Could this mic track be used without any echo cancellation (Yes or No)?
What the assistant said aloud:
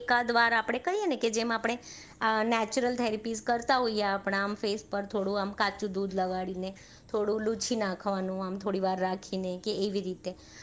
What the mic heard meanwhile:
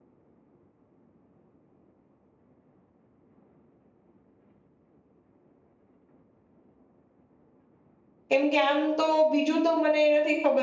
Yes